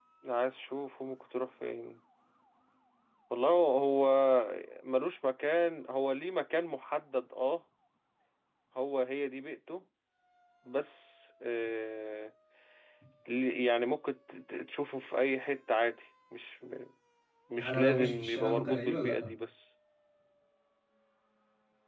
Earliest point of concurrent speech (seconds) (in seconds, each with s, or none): 17.6 s